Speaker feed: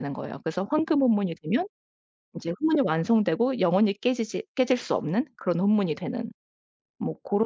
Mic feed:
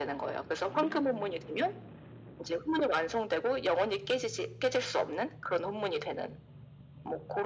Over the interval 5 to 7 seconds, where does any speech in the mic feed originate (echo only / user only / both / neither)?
echo only